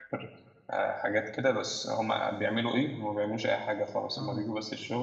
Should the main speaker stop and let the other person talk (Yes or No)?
No